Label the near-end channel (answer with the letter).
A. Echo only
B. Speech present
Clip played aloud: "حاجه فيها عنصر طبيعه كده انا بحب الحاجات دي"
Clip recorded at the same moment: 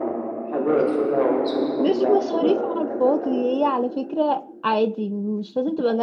B